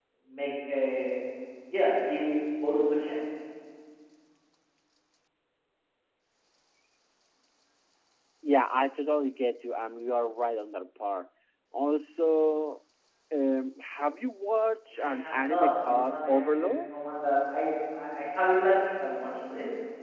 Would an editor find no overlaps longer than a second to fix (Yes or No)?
No